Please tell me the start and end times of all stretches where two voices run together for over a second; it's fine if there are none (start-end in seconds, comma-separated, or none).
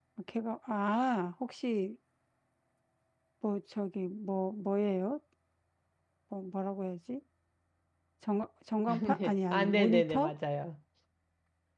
8.9-10.3